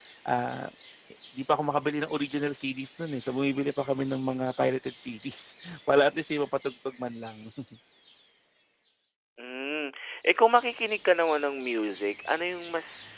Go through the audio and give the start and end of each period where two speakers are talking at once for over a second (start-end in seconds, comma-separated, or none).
none